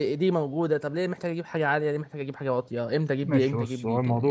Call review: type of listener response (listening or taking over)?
taking over